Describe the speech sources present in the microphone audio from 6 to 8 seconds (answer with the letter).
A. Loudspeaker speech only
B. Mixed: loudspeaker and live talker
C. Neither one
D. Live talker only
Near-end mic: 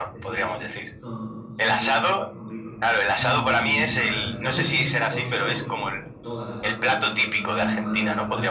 B